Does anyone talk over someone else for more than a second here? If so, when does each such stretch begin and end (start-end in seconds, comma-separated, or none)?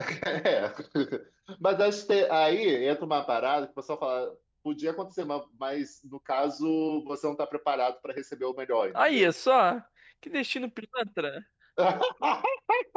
none